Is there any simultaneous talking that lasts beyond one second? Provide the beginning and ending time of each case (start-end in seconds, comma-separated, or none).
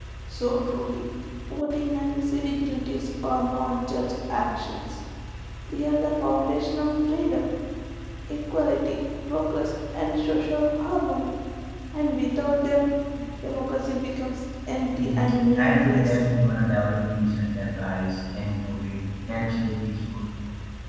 15.0-16.2